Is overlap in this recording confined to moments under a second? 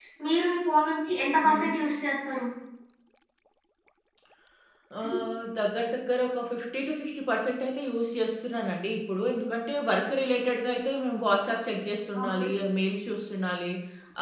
Yes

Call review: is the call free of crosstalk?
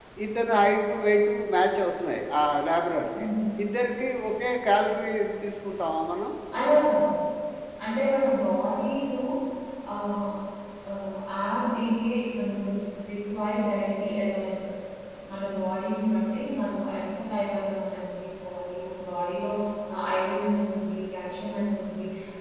Yes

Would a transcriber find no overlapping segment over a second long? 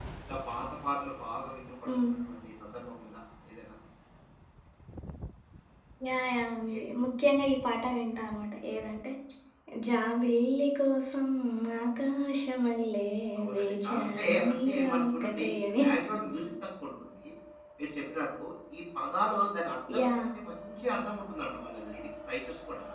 No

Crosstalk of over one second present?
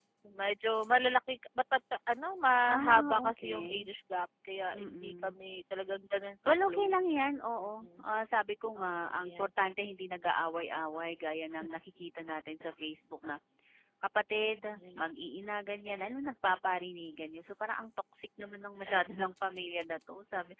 Yes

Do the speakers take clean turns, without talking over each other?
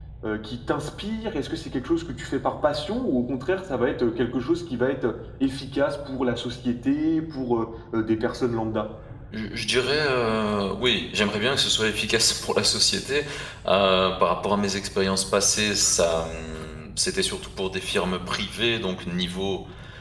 Yes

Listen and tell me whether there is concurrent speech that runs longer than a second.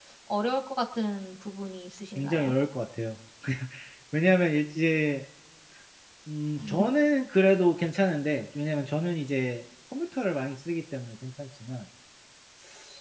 No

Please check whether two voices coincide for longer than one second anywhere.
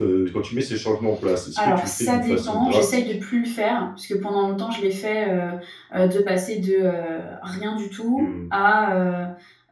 Yes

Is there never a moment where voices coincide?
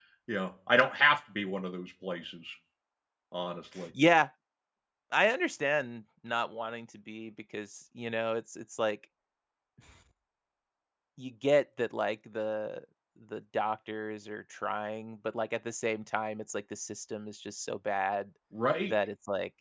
Yes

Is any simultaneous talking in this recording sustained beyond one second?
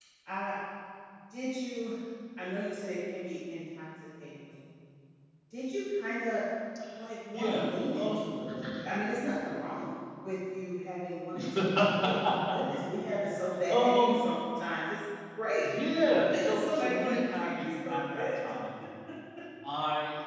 Yes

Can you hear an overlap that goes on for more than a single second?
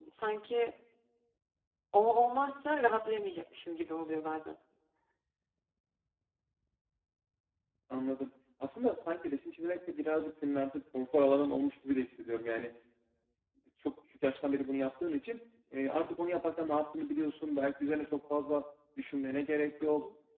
No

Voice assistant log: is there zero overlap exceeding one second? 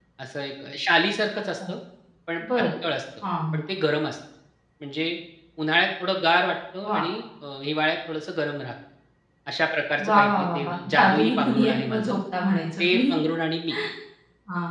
No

